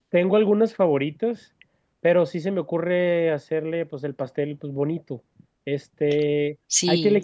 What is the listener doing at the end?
listening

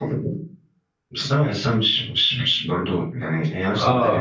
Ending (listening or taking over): taking over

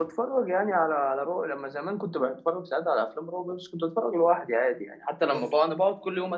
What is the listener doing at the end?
listening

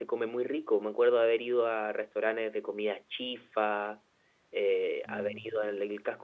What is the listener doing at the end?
listening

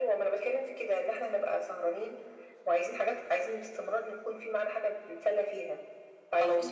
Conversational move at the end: listening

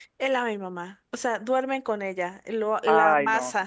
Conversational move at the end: listening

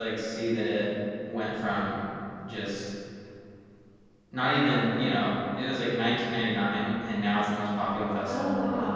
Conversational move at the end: taking over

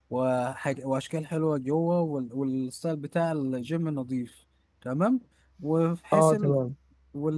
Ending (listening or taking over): listening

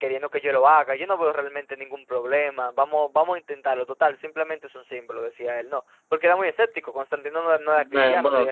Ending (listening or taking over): taking over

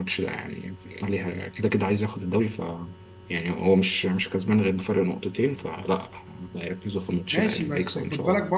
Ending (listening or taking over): taking over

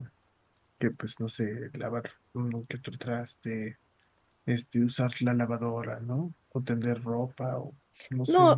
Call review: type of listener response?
taking over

